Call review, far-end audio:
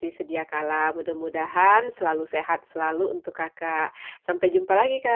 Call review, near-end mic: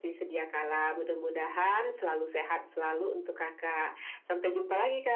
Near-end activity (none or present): none